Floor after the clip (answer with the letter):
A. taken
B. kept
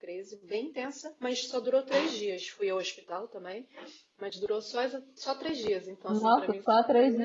A